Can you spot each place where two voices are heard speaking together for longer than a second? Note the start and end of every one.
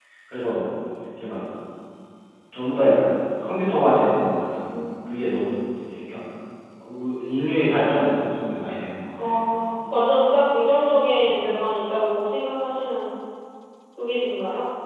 none

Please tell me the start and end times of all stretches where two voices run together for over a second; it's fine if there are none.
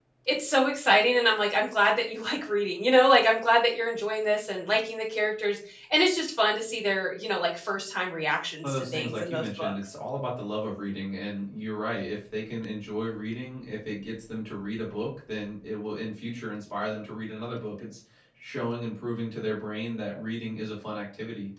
8.6-9.9

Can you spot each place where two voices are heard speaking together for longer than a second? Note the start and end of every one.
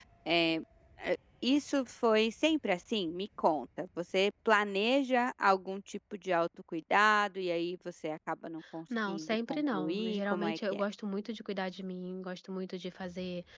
9.1-10.8

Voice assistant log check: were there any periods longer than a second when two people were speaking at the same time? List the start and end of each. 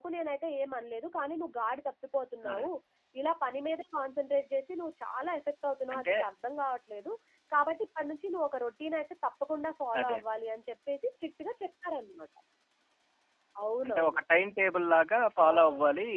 none

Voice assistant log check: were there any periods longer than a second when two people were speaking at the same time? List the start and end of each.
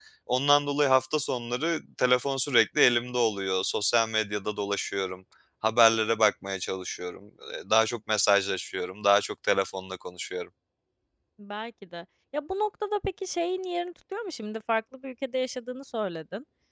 none

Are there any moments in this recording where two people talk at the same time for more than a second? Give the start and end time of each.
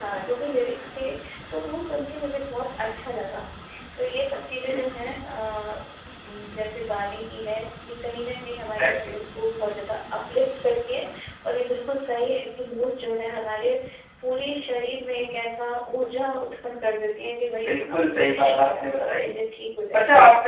17.6-19.3

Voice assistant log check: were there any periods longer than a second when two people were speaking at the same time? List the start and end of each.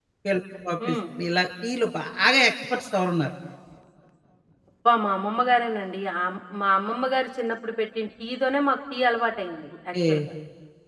none

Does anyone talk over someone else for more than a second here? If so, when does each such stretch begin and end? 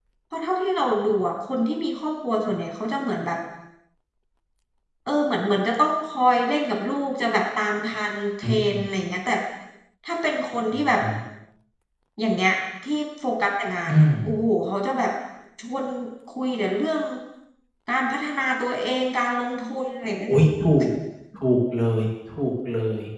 none

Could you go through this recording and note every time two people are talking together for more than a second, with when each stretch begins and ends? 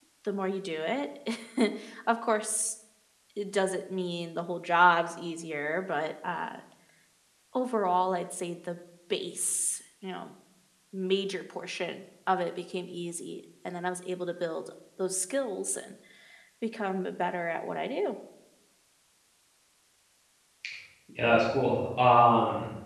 none

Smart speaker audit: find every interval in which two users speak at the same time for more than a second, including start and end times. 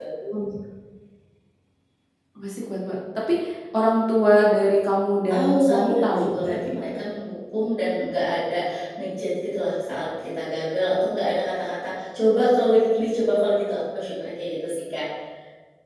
5.3-6.7

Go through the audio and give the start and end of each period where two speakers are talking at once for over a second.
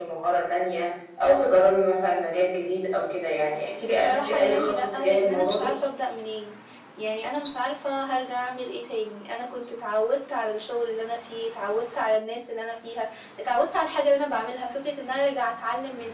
3.8-5.7

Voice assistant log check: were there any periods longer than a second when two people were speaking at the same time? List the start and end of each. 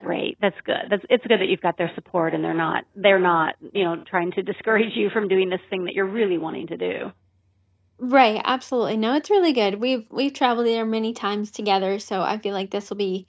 none

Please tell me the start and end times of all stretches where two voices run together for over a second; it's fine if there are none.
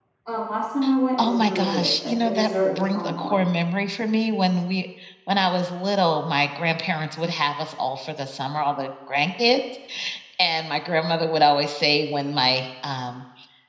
1.2-3.4

